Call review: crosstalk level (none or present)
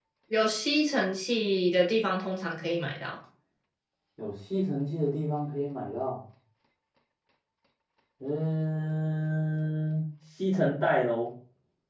none